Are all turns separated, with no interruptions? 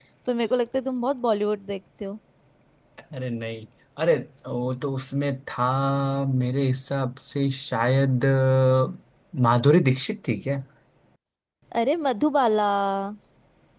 Yes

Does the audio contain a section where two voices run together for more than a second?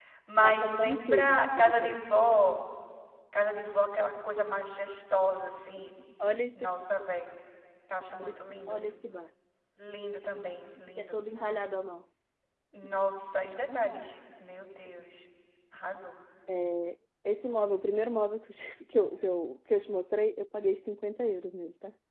Yes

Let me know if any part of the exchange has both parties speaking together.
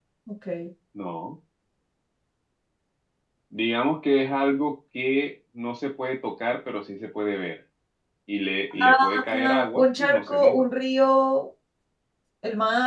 Yes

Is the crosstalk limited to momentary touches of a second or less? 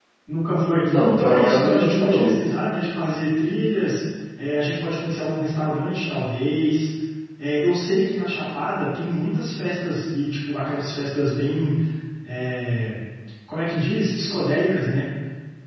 No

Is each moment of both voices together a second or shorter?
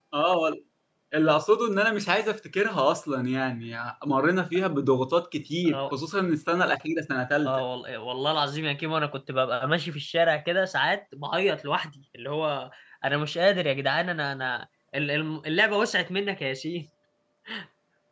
Yes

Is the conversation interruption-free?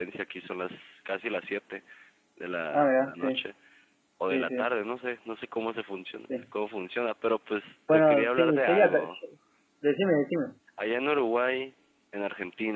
No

